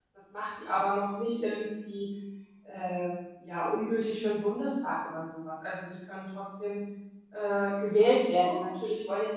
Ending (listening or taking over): listening